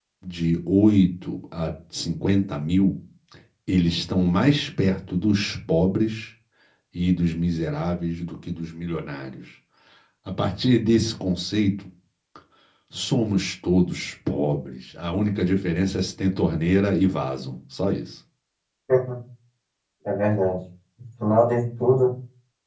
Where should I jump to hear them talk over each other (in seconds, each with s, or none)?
none